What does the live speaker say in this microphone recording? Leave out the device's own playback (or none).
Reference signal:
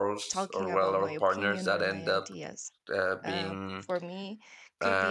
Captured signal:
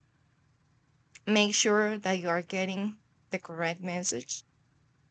make sure that you are getting the correct message.